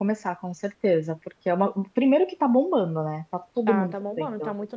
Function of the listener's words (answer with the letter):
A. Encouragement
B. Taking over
B